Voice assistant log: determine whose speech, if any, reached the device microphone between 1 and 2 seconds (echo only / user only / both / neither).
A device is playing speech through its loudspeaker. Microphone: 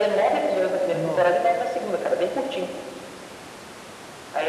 both